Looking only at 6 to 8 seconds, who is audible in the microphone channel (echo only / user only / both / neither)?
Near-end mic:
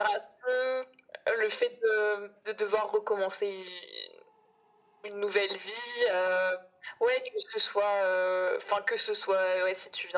echo only